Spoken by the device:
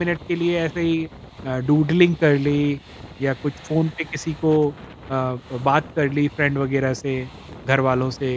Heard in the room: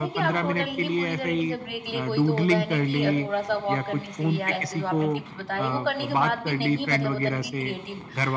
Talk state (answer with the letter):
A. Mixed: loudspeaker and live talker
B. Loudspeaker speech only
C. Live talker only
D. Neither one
A